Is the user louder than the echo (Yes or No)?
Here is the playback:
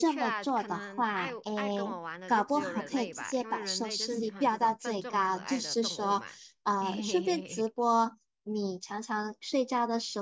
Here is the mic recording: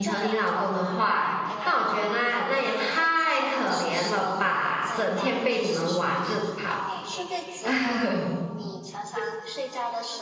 Yes